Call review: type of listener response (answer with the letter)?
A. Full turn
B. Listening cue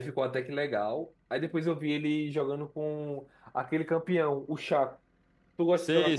A